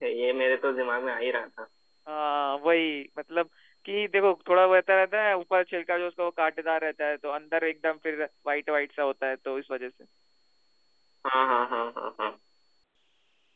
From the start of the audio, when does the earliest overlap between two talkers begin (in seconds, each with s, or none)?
none